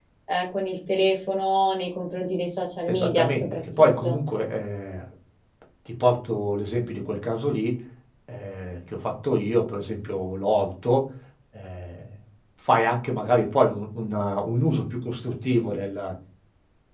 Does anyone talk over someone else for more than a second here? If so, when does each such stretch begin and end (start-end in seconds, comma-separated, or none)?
2.9-4.2